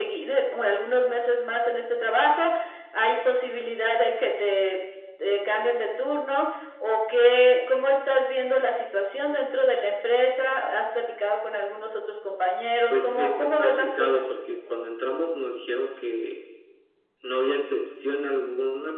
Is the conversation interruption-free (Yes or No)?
No